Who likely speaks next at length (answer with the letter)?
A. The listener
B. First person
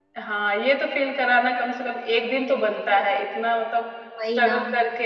B